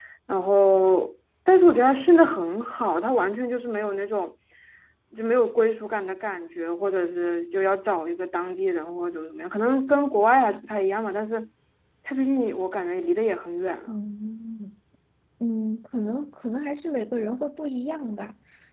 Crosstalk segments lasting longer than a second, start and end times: none

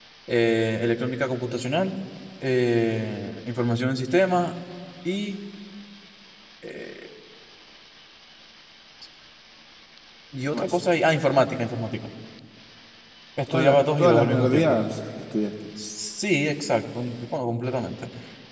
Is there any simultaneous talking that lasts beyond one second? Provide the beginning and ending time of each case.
13.5-14.8

